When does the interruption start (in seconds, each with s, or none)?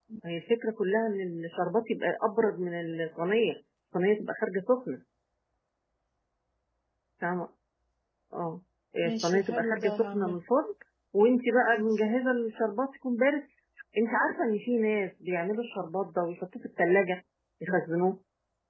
9.1 s